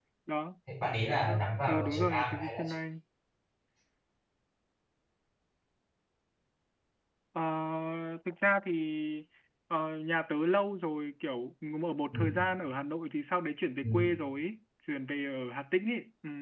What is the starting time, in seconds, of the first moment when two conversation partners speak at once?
1.3 s

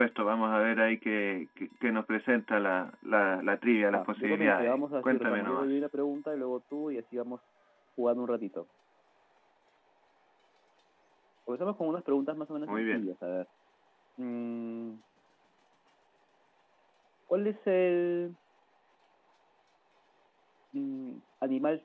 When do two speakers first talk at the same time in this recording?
3.9 s

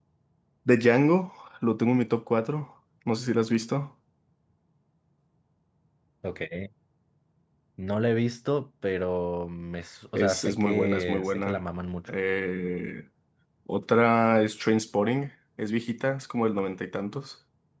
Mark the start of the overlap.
10.2 s

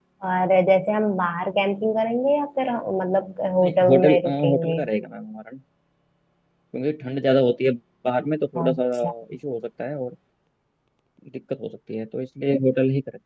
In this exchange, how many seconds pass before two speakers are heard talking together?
3.6 s

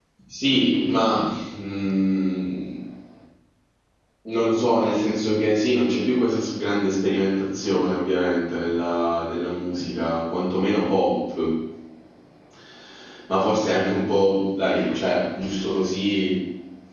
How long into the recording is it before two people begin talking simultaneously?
none

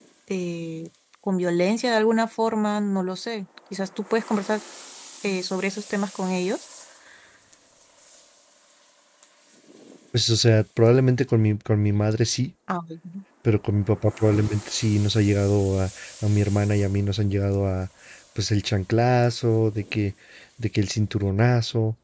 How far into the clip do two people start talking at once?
none

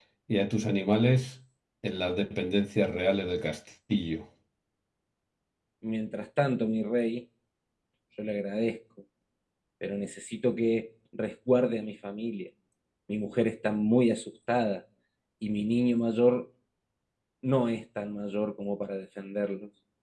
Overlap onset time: none

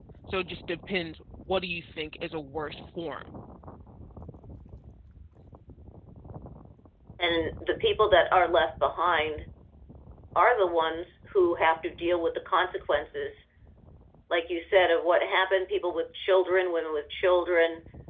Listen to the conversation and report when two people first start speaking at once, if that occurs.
none

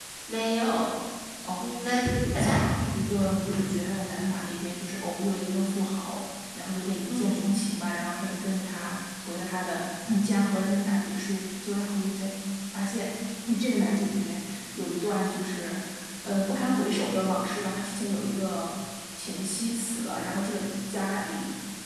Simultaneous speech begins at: 1.6 s

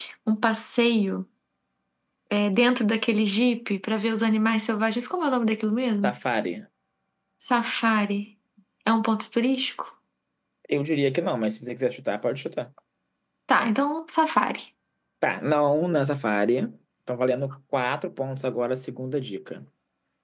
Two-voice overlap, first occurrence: none

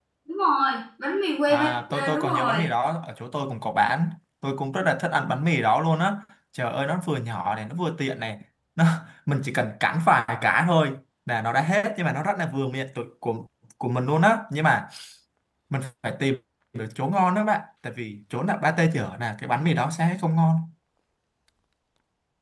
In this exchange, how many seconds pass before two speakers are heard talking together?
1.5 s

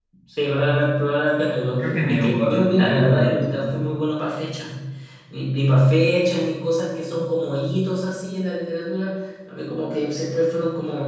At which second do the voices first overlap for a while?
1.8 s

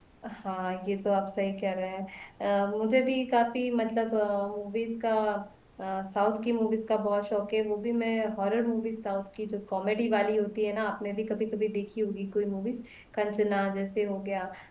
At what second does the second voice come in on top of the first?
none

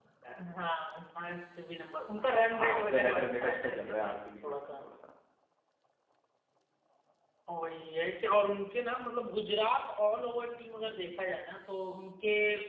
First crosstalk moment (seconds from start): 2.5 s

